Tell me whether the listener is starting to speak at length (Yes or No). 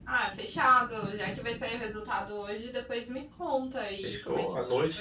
Yes